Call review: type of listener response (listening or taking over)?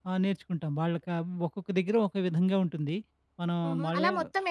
taking over